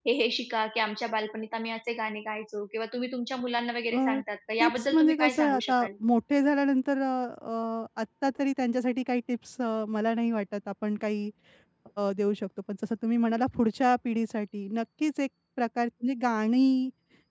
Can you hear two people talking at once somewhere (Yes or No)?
Yes